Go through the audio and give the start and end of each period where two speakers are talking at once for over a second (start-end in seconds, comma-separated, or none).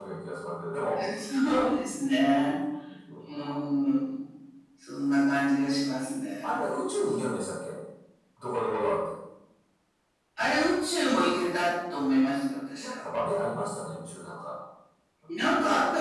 none